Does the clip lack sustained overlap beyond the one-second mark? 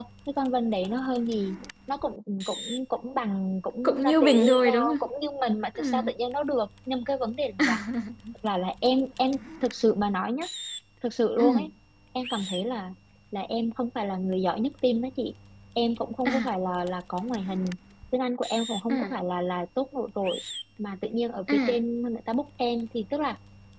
No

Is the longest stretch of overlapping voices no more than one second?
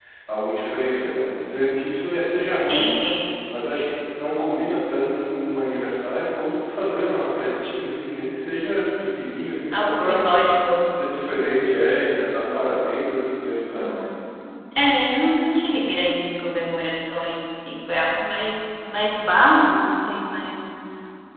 Yes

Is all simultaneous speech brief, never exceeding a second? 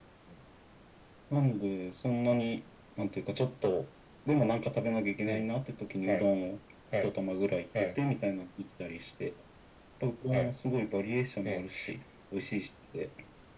Yes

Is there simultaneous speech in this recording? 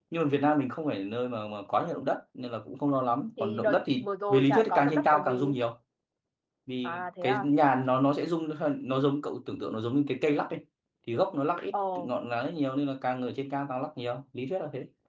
Yes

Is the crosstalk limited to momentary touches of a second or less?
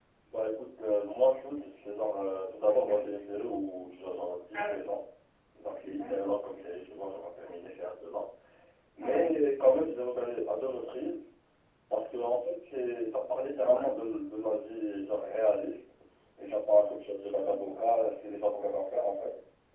Yes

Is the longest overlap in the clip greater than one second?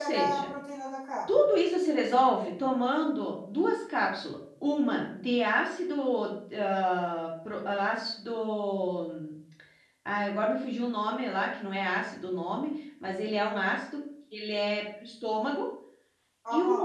No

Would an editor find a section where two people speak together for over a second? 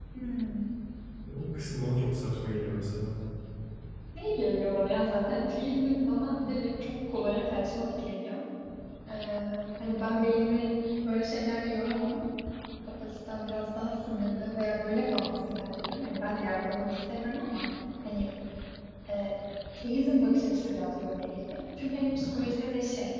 No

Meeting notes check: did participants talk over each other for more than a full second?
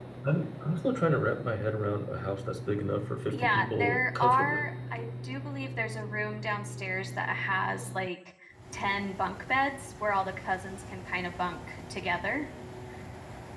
Yes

